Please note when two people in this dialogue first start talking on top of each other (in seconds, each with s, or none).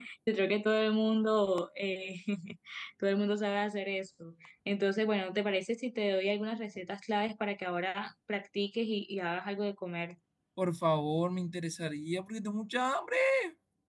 none